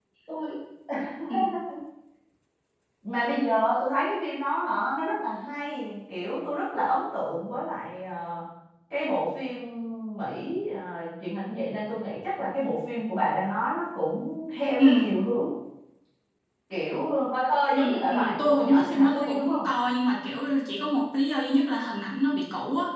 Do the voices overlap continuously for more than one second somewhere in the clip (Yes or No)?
Yes